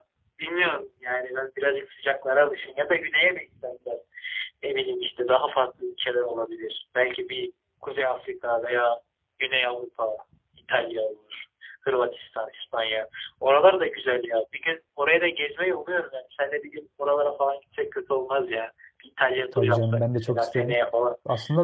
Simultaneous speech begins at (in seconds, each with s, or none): 19.5 s